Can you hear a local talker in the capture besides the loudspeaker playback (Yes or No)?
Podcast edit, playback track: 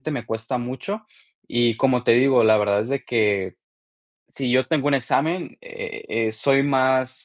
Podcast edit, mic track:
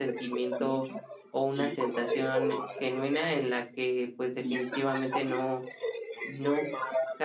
Yes